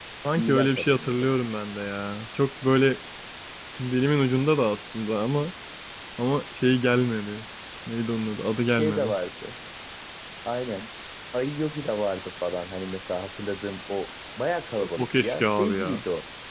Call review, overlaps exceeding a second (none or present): present